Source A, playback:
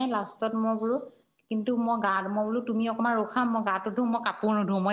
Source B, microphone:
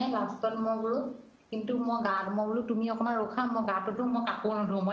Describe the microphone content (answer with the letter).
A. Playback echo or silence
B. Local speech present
A